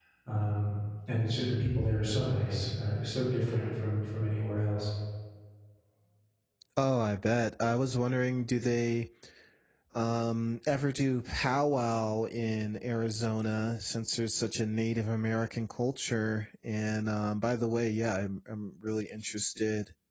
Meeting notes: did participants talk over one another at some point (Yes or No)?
No